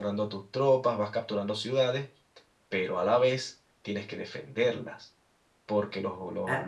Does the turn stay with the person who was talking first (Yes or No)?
Yes